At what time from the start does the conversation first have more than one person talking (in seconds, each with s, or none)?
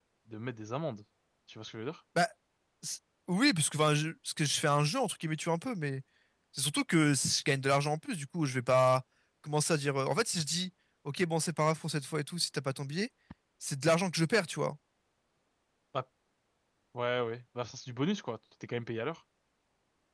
none